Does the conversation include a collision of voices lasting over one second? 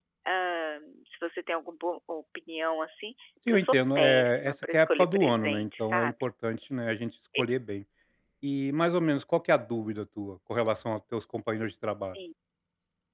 Yes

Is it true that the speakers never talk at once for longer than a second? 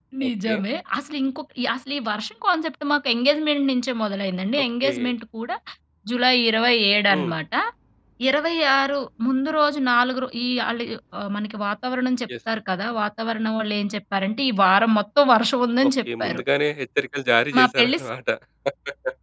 Yes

